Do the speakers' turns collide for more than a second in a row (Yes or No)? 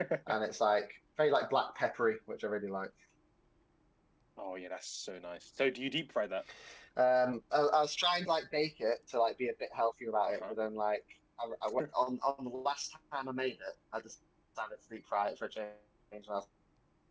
No